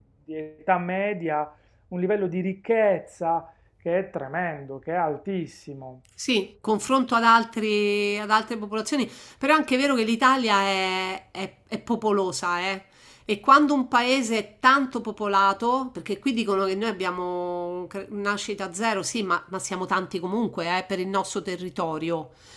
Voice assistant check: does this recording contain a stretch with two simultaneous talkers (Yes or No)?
No